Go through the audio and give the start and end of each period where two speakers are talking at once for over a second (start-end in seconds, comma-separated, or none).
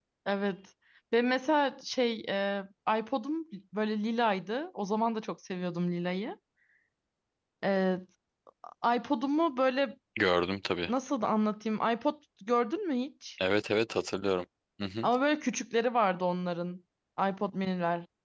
none